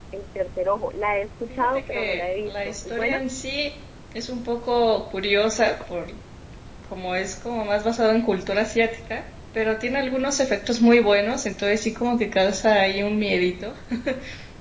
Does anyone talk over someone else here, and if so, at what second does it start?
1.5 s

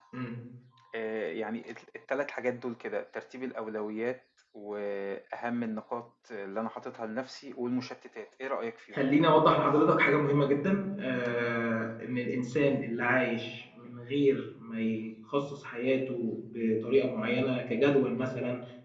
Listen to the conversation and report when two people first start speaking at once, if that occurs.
none

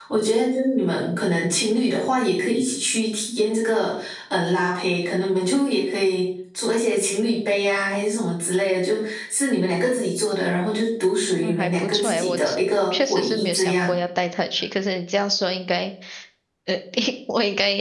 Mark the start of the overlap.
11.4 s

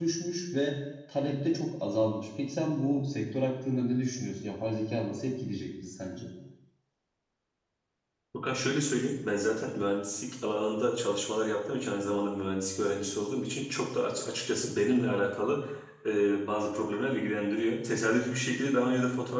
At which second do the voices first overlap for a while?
none

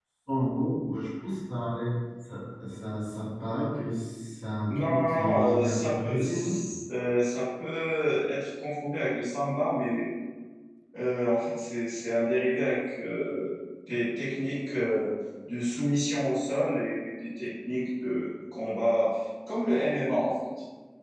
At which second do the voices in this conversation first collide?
4.7 s

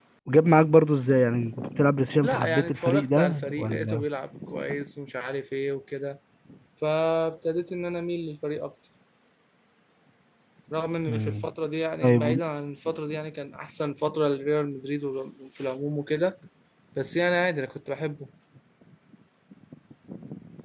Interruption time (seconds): 2.2 s

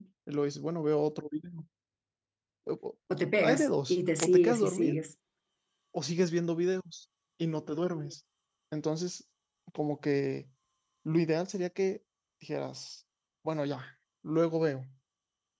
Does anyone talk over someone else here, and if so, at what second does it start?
3.4 s

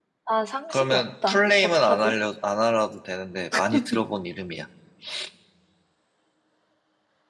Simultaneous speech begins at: 0.7 s

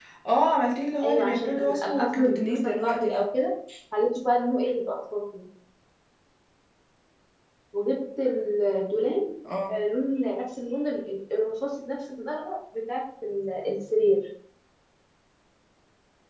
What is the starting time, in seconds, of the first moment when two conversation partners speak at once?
1.0 s

